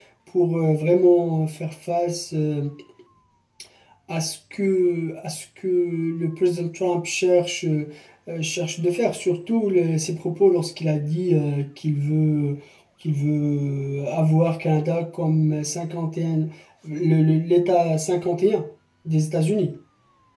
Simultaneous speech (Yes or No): No